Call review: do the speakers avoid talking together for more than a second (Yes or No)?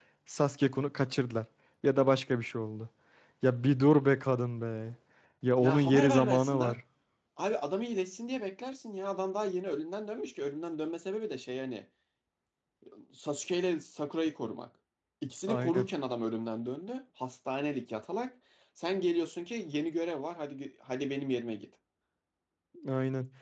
No